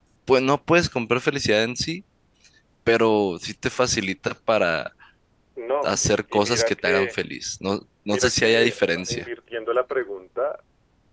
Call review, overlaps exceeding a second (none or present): present